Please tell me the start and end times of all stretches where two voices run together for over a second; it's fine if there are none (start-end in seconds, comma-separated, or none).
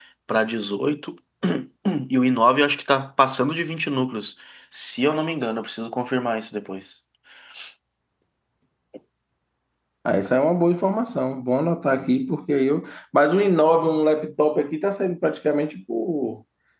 none